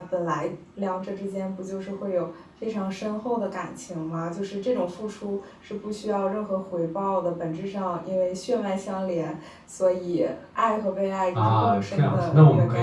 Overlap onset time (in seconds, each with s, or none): 11.3 s